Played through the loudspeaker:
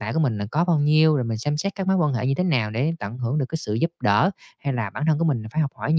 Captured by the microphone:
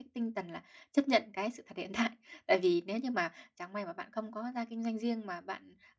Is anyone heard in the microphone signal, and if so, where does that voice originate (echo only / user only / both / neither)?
user only